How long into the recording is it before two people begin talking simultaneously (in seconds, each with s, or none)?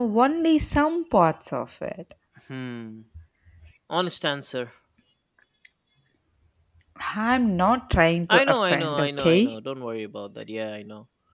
8.3 s